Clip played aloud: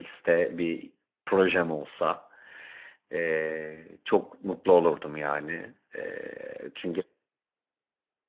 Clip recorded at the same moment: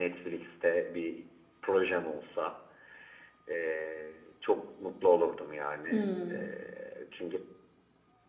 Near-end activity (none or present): present